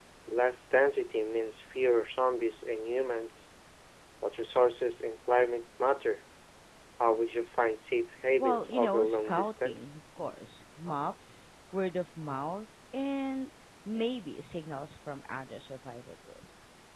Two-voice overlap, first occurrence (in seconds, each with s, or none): 8.4 s